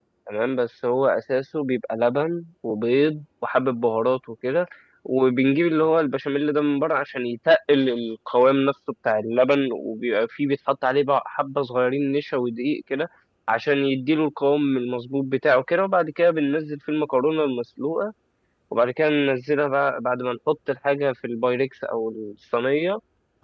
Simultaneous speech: No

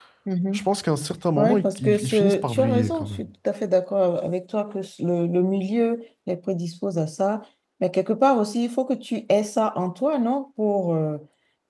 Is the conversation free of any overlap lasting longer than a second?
No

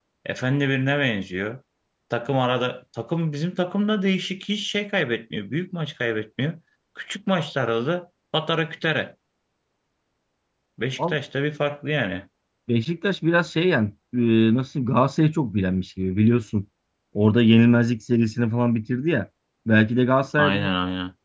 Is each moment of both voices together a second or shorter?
Yes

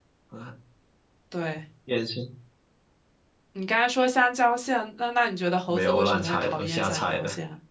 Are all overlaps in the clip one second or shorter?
No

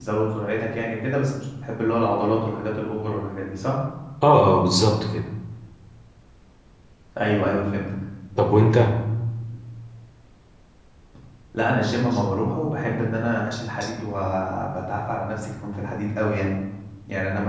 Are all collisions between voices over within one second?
Yes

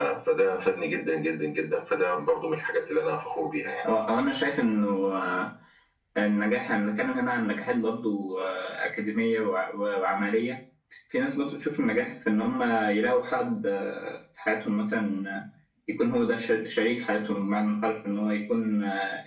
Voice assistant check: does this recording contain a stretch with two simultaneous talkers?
No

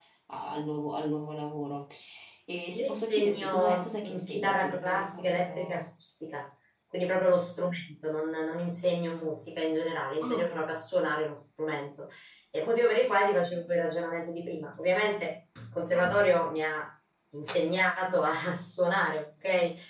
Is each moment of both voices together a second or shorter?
No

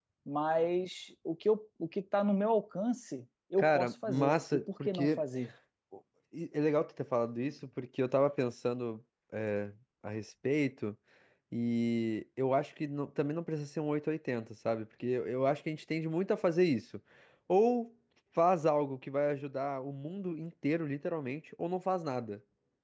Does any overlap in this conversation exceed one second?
Yes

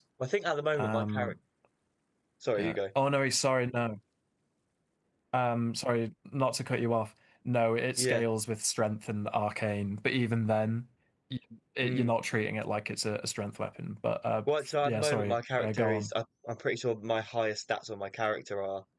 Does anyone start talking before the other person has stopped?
Yes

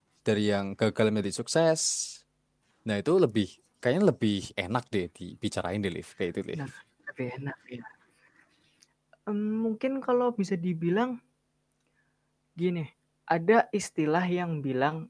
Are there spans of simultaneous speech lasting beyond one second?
No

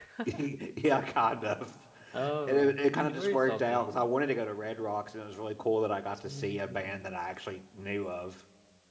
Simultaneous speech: Yes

